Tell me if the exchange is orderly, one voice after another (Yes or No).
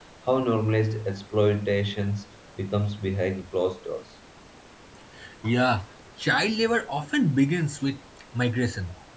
Yes